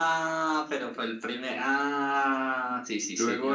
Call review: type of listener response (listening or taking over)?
taking over